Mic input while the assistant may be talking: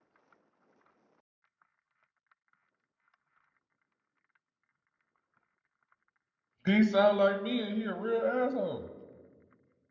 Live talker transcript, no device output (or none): He sound like me, and he a real asshole.